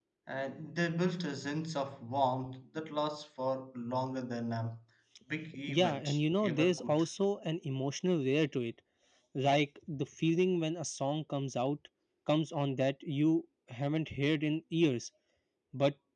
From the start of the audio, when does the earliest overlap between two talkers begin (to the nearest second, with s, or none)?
6 s